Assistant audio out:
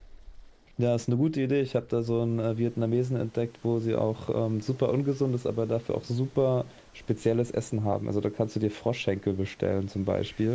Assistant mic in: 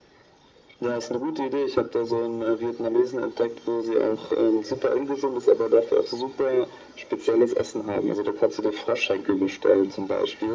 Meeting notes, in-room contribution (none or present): none